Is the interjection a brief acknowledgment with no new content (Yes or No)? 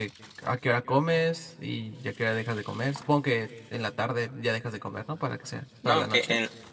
No